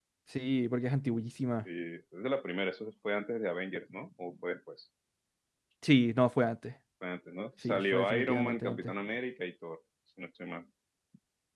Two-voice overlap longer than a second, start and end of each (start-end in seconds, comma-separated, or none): 7.6-8.9